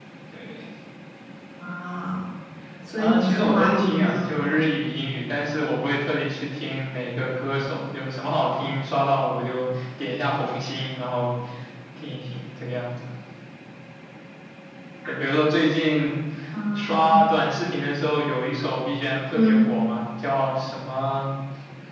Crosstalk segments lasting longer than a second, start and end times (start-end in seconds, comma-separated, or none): 3.0-4.5